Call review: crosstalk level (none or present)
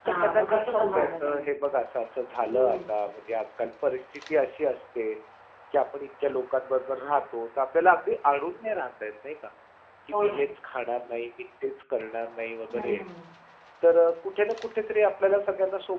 present